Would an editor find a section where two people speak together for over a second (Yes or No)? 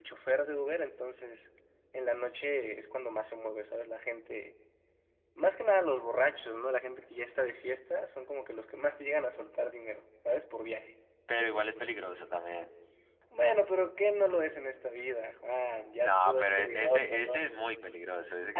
Yes